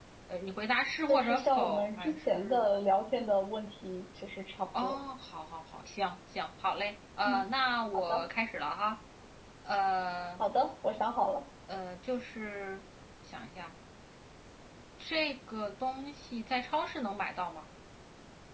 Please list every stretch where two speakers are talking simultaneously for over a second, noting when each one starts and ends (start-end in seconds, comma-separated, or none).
1.1-2.6